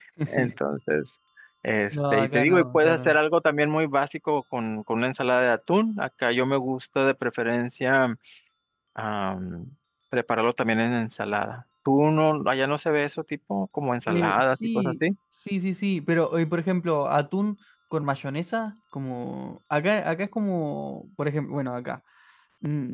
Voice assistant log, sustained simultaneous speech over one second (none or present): present